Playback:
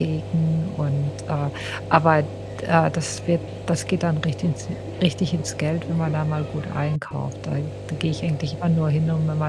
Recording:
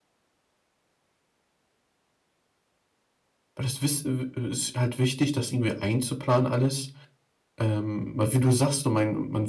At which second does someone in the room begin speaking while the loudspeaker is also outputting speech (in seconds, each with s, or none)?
3.5 s